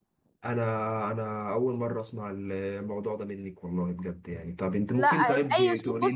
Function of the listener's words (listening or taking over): taking over